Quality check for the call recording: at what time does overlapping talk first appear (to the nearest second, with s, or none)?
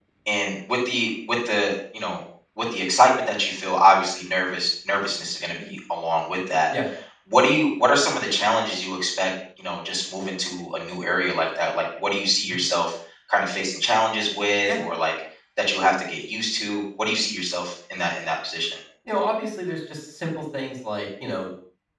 none